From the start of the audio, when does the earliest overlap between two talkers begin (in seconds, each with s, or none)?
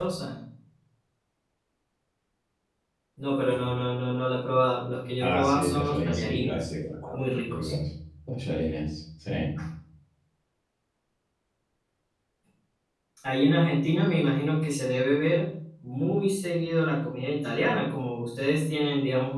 5.2 s